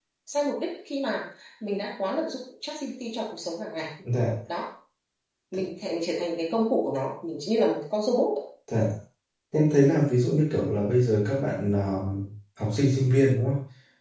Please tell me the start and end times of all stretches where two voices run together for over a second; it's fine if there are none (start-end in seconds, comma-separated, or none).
none